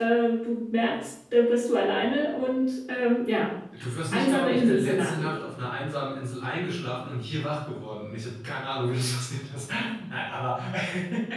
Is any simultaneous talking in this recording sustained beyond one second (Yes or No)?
Yes